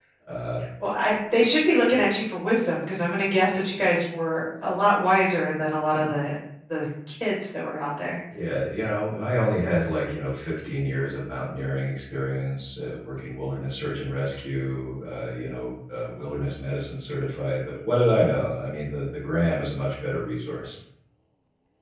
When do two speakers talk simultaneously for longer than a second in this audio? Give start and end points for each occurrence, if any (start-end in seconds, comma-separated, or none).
none